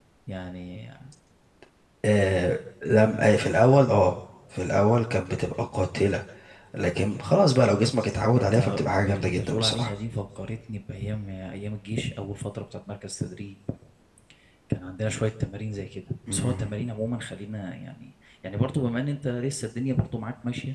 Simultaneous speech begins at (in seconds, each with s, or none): 8.4 s